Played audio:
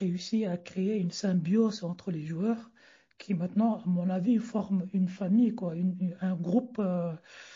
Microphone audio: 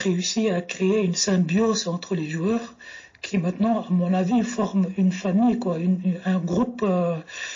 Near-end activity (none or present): none